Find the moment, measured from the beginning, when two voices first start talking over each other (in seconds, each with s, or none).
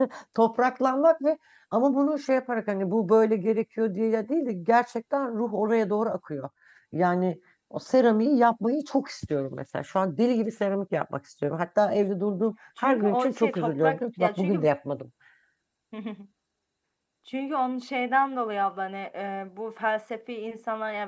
12.8 s